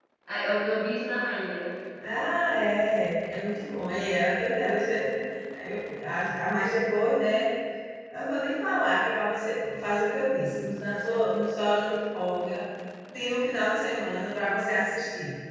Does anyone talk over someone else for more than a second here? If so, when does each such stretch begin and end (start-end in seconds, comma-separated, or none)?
none